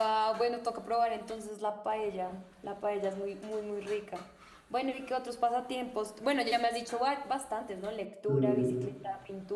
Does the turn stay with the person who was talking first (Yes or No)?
Yes